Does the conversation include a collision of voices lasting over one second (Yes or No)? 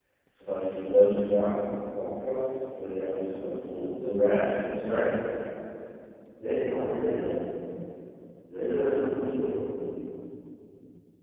No